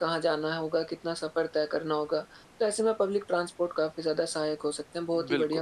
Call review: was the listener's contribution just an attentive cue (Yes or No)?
Yes